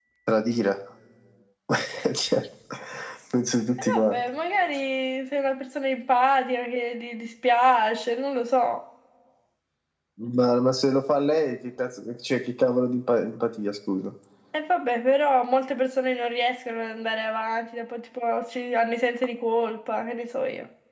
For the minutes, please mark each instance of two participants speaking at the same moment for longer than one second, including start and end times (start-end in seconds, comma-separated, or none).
none